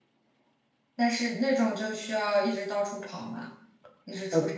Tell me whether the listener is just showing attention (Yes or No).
No